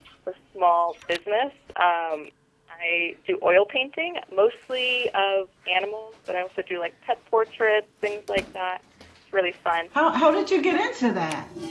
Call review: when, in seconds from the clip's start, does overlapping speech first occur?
none

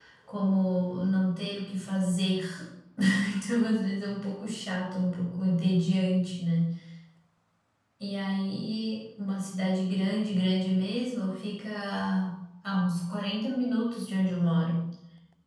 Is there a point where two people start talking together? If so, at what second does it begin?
none

